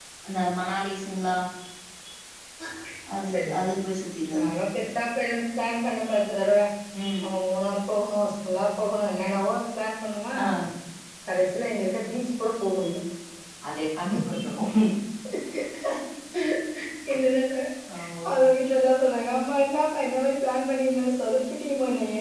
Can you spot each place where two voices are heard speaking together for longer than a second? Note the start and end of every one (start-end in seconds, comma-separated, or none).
none